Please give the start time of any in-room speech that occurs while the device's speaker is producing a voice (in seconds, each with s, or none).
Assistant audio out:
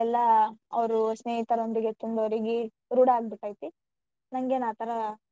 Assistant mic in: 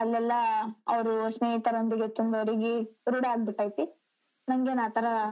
none